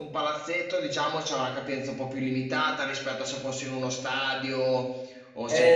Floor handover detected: Yes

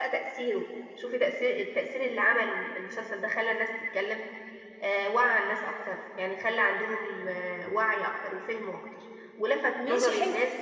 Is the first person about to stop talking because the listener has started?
No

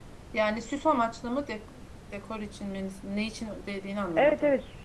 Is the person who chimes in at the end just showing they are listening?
No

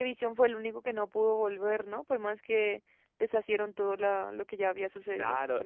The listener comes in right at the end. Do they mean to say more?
Yes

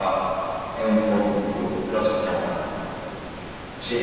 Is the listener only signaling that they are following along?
Yes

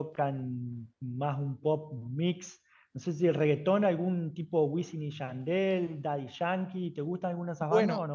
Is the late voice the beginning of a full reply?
Yes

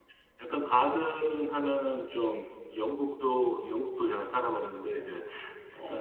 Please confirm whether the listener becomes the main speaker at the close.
No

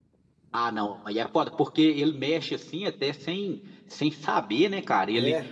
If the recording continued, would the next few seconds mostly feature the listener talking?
No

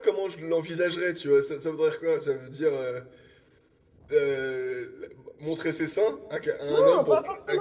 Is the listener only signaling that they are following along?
No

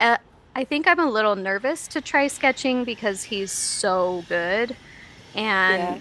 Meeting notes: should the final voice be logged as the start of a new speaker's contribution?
No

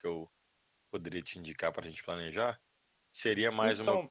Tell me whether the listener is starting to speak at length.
No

